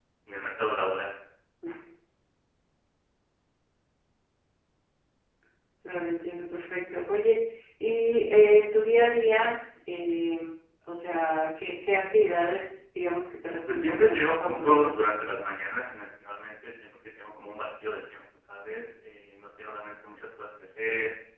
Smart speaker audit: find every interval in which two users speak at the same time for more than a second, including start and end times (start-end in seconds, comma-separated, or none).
13.7-14.9